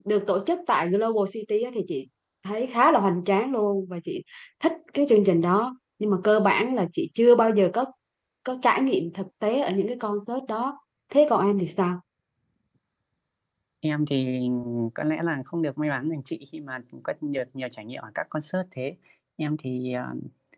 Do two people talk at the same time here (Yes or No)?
No